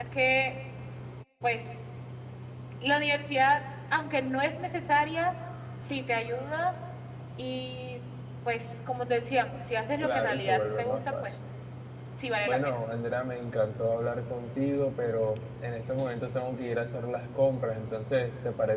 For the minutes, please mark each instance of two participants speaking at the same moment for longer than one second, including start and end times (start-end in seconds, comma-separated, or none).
10.0-11.3